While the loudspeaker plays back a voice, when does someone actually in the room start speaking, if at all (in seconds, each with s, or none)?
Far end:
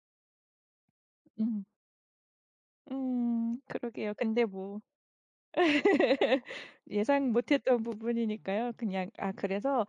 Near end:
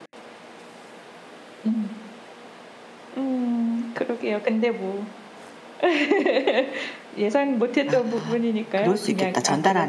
7.8 s